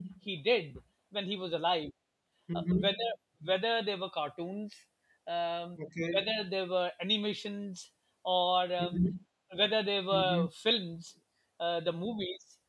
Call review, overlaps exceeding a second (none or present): none